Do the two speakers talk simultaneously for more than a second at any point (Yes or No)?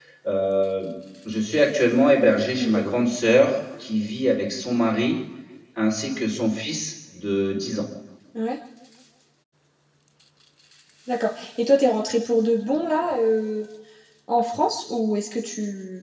No